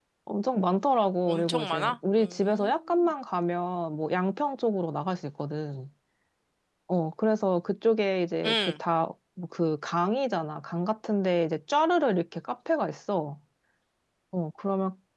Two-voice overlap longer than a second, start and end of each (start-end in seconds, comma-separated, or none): 1.2-3.1